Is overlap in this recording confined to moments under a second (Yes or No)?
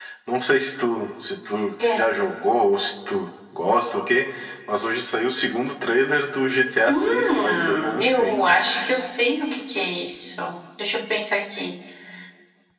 No